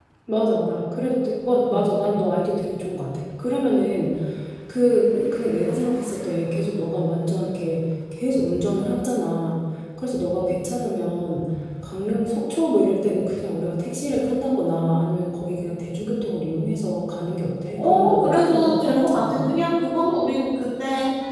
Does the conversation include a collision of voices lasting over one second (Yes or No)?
Yes